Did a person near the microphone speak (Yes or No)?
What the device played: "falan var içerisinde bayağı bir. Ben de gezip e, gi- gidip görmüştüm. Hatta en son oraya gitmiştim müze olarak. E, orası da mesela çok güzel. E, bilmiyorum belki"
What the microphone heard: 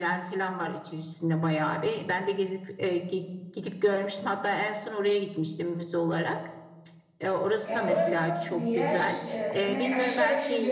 Yes